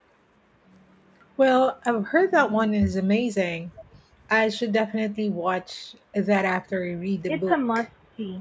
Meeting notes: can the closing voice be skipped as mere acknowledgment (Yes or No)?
No